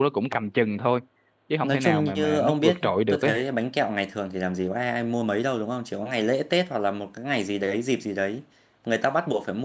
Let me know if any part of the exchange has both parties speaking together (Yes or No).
Yes